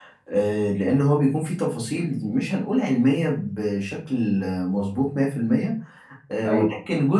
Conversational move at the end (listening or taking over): listening